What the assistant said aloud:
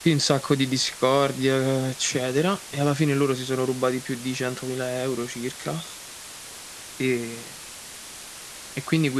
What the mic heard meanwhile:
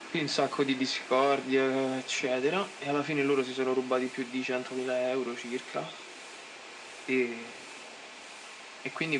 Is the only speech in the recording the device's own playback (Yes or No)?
Yes